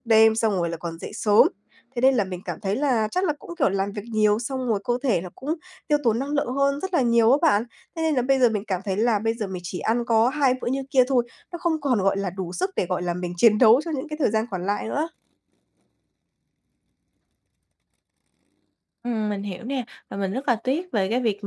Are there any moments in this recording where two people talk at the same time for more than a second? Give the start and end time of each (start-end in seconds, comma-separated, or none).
none